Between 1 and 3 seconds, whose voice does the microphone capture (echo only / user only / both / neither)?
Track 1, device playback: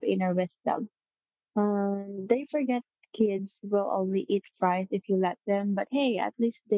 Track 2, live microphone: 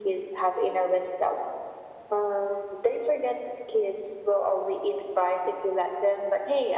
echo only